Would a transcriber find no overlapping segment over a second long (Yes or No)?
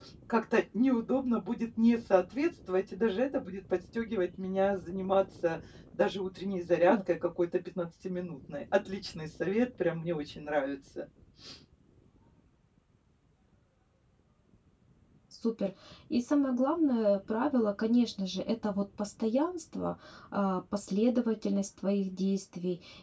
Yes